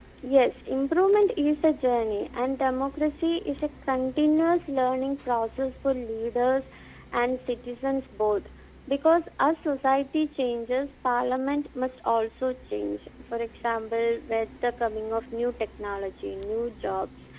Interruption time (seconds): none

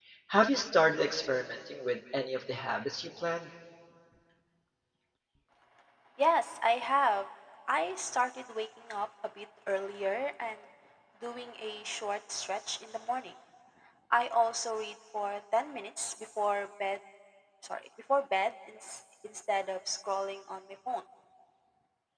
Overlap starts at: none

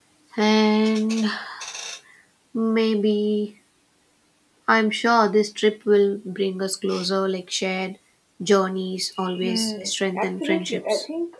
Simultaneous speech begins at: 9.2 s

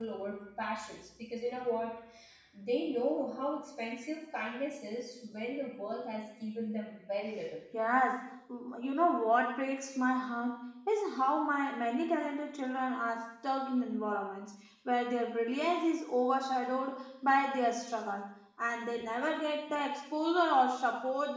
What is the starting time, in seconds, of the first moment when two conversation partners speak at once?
none

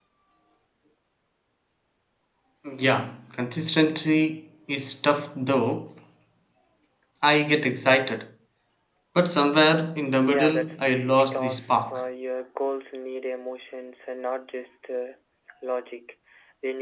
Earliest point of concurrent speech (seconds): 10.2 s

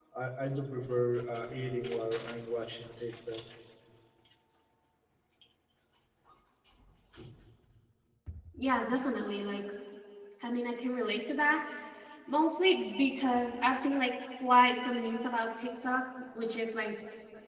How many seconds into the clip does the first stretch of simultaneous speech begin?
none

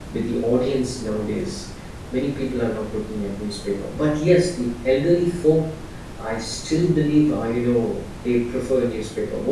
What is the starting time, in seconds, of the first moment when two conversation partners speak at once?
none

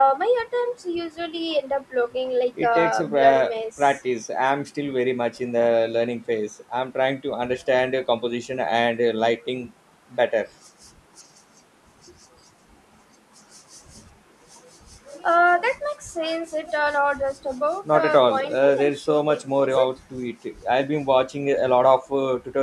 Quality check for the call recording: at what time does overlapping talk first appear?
2.6 s

